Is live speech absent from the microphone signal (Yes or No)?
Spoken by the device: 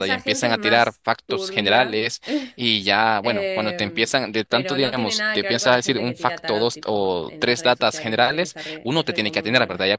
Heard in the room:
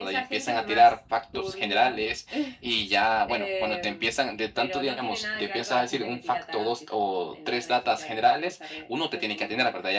Yes